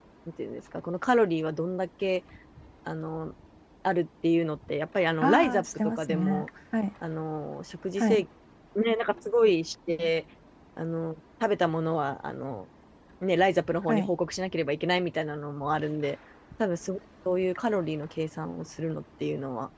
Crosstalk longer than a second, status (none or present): present